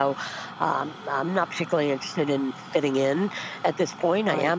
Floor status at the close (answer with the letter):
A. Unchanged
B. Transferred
A